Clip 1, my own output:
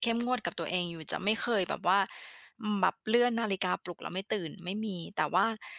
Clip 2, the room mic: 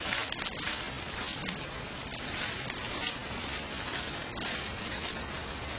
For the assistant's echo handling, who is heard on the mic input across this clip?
neither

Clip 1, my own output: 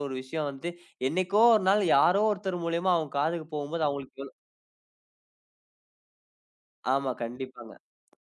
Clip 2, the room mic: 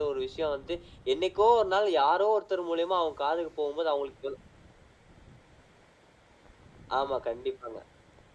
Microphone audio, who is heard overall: echo only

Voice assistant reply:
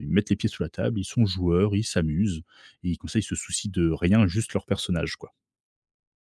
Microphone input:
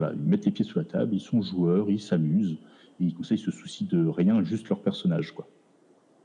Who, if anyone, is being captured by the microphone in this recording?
echo only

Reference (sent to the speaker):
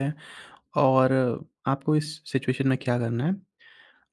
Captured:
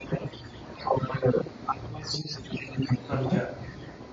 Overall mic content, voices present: both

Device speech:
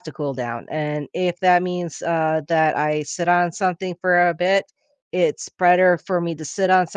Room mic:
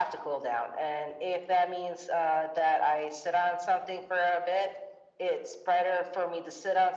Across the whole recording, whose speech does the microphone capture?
echo only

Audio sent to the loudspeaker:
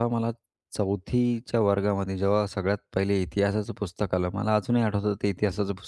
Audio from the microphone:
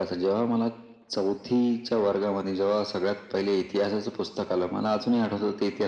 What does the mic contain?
echo only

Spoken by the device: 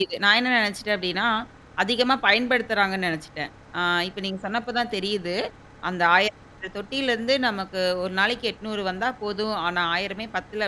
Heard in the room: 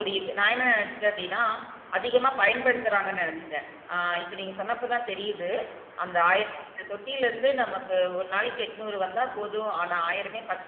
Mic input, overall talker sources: echo only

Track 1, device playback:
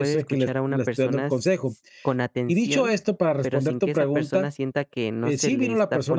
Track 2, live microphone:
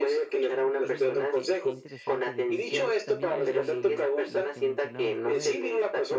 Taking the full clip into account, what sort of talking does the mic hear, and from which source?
both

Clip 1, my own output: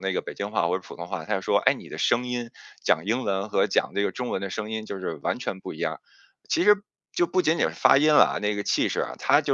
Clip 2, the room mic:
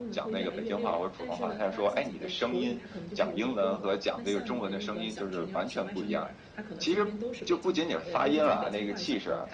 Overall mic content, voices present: both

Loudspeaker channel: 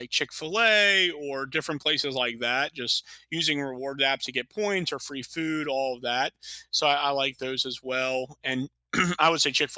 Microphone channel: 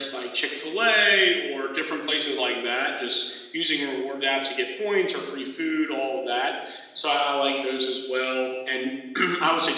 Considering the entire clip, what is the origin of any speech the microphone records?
echo only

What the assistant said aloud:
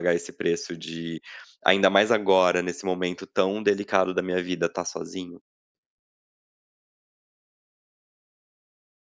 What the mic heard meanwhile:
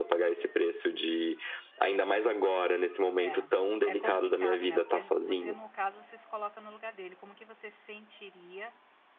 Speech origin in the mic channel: both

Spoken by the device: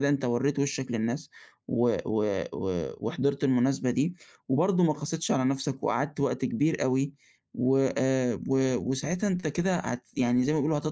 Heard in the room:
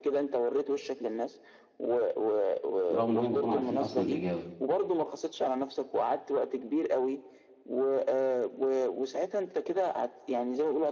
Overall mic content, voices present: both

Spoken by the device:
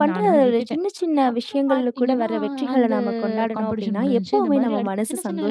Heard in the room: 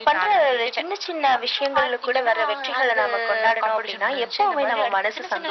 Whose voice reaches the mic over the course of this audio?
echo only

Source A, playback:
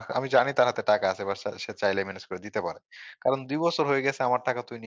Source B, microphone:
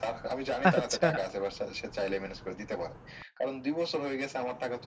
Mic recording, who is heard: both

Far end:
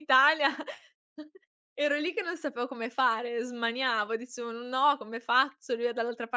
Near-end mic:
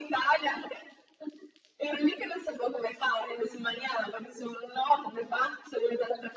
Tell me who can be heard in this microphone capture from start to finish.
echo only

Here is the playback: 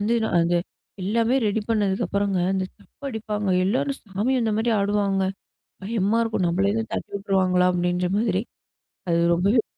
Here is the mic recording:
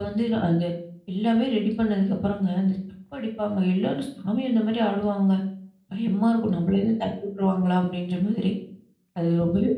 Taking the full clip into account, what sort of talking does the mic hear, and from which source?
echo only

